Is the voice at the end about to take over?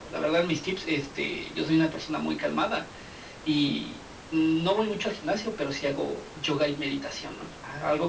No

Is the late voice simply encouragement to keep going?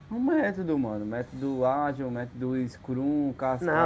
No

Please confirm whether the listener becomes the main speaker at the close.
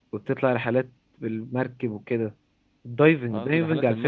Yes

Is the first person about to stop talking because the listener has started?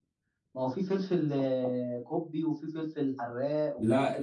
Yes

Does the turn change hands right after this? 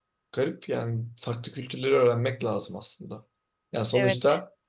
No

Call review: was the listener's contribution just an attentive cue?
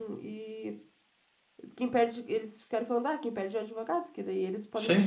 Yes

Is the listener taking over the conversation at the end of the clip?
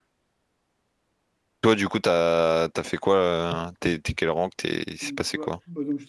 Yes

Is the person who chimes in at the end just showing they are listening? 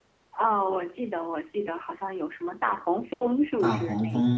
No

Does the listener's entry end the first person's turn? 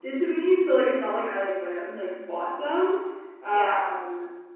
No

